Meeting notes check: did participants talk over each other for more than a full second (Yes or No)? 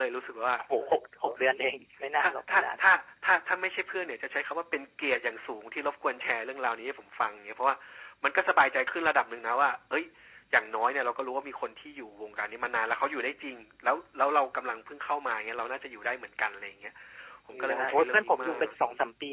Yes